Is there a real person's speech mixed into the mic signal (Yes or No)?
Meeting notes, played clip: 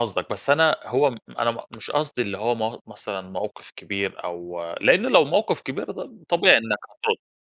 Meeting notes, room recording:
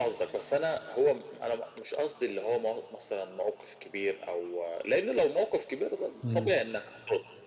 Yes